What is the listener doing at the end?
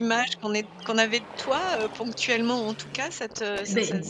taking over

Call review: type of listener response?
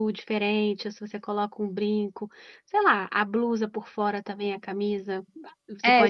taking over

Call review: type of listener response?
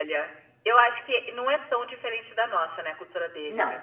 listening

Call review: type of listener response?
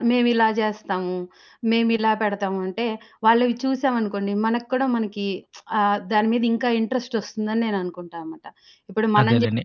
taking over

